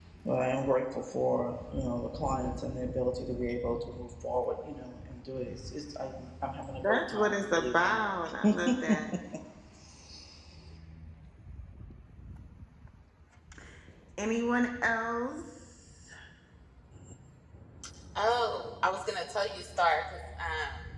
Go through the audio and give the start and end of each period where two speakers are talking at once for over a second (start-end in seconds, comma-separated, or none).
6.8-8.1